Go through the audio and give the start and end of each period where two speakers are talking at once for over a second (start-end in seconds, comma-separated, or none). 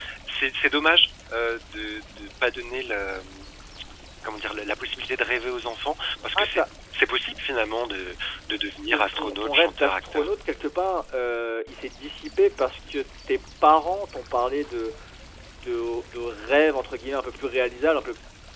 8.8-10.3